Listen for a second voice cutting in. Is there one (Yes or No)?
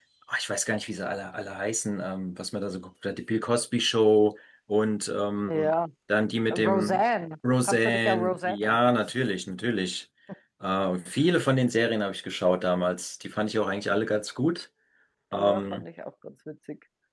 Yes